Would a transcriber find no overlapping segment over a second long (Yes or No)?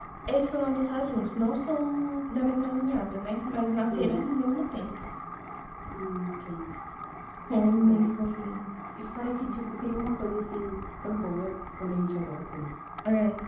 Yes